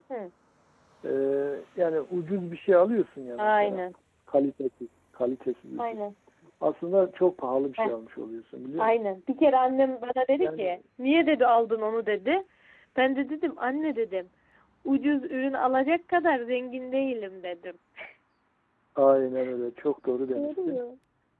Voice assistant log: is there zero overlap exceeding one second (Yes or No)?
Yes